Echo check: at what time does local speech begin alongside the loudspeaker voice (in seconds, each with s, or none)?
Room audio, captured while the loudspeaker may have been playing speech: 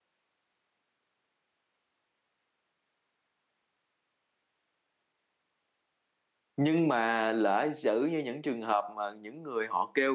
6.6 s